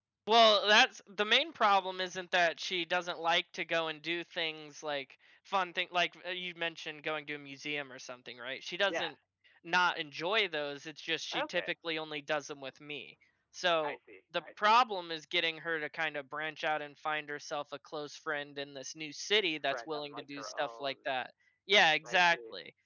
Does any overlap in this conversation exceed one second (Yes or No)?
Yes